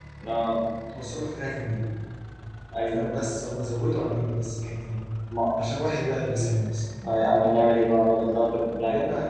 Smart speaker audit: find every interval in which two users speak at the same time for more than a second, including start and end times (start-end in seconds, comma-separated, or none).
none